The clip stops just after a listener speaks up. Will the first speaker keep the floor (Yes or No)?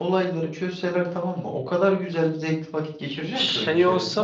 No